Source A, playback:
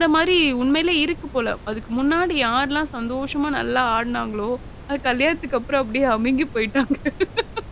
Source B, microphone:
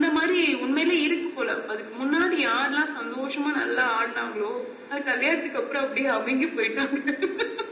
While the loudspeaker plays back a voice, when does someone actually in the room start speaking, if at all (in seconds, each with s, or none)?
none